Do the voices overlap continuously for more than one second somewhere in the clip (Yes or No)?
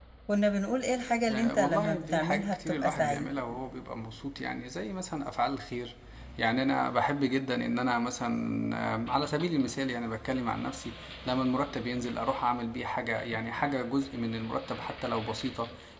Yes